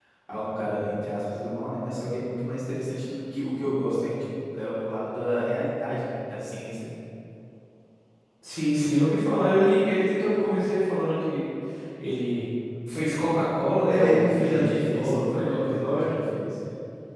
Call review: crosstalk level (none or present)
present